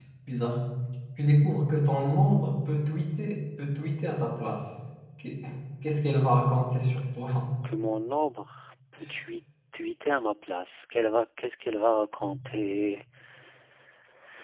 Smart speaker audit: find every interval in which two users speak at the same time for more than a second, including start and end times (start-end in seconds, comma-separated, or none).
none